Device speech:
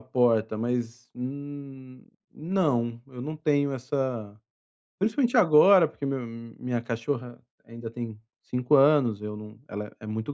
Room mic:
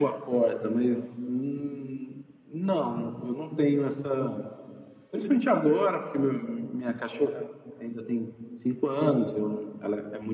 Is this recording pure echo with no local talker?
Yes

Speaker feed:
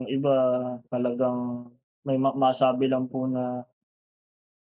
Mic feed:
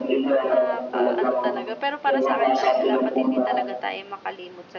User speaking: Yes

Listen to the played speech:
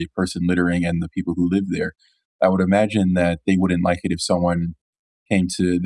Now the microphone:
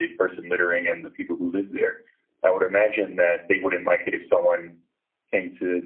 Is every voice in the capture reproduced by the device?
Yes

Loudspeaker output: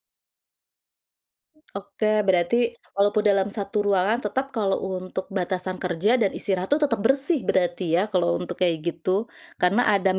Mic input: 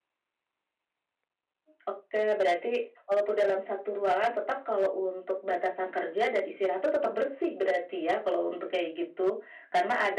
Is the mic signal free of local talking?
Yes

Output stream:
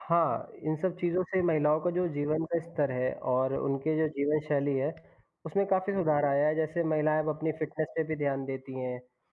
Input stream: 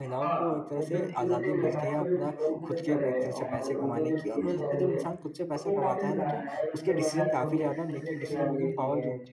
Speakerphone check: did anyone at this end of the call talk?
Yes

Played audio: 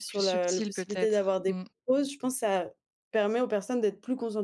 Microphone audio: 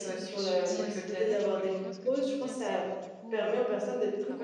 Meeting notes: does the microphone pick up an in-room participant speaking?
Yes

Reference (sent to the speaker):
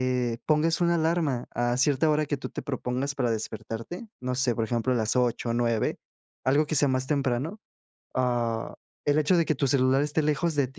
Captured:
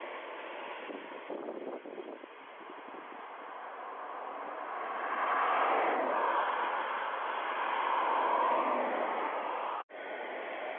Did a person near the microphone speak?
No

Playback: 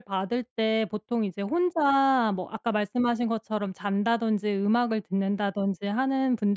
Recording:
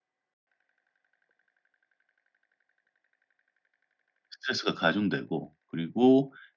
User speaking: Yes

